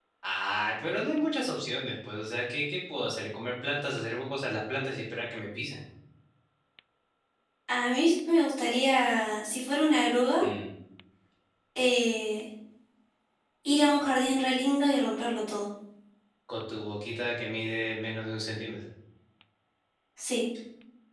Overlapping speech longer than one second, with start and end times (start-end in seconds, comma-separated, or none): none